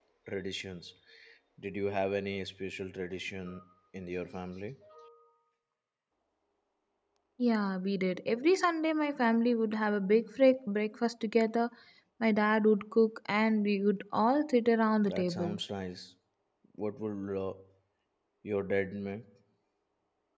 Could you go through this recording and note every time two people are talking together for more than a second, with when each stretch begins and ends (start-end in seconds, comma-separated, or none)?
none